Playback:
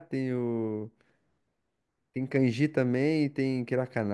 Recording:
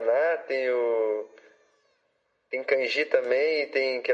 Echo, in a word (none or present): present